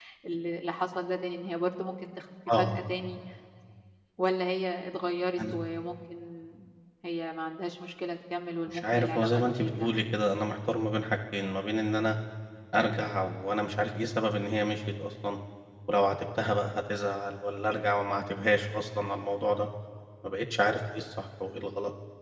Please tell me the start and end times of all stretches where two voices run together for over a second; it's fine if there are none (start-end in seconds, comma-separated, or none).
8.7-10.0